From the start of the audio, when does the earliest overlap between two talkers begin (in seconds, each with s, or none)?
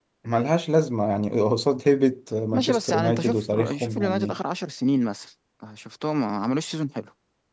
2.5 s